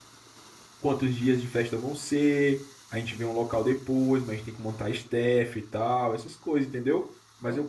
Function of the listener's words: listening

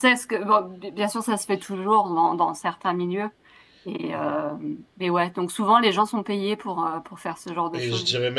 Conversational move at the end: taking over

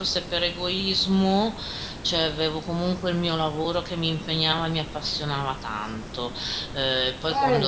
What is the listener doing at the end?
listening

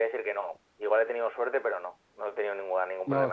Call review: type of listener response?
taking over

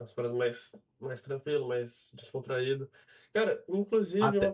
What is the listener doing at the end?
listening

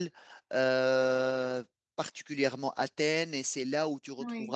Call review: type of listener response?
listening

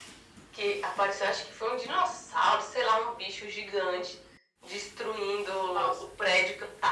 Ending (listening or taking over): listening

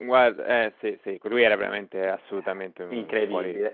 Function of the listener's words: taking over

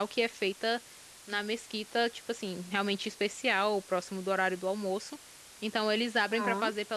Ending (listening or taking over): listening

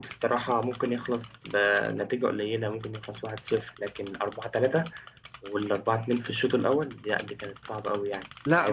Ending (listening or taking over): taking over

